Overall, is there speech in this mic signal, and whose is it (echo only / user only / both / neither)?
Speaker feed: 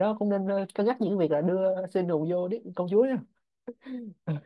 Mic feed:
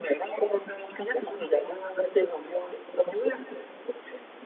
echo only